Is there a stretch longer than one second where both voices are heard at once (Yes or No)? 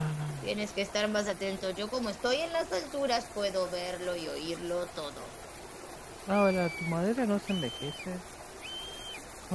No